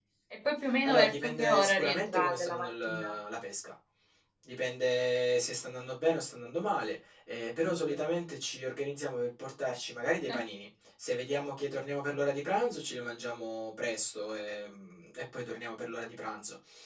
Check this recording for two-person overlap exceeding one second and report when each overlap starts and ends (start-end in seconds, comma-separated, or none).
0.8-3.2